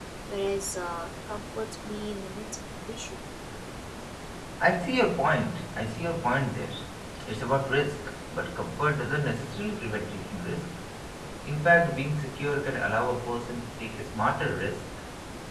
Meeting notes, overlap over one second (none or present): none